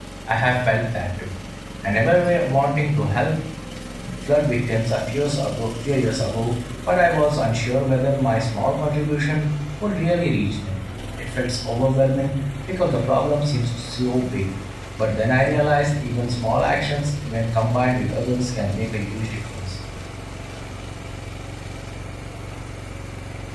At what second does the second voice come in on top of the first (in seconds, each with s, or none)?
none